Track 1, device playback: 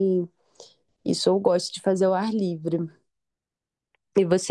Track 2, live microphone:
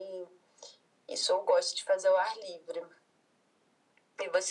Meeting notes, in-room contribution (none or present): none